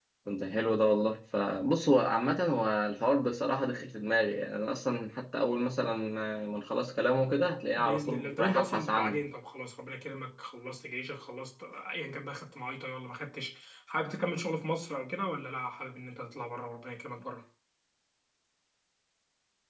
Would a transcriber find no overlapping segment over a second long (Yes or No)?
No